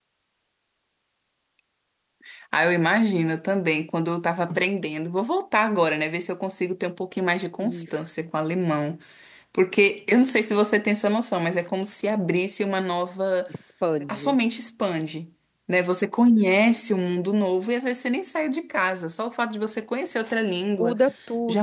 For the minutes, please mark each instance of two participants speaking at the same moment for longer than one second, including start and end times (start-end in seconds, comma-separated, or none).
none